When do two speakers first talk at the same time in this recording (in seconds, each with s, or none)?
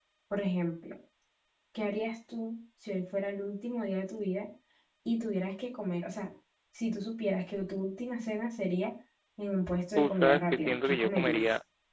9.9 s